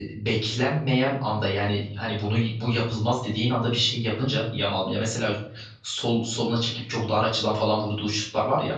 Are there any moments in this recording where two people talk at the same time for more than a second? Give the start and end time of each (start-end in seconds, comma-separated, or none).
none